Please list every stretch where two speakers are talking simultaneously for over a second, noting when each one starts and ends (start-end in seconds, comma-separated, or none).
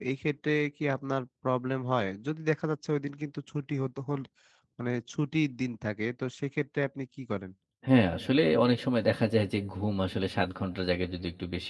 none